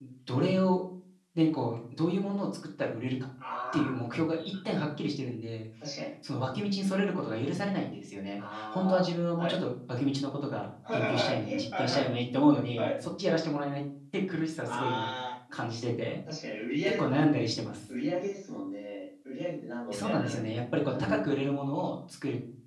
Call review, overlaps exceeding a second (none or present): present